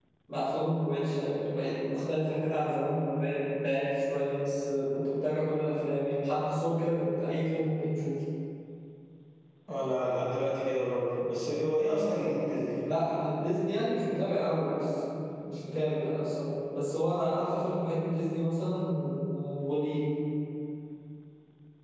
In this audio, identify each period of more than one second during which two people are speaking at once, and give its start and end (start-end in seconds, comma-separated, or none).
none